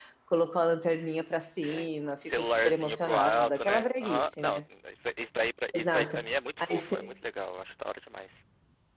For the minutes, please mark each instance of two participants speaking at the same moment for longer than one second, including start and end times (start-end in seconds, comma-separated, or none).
2.2-4.6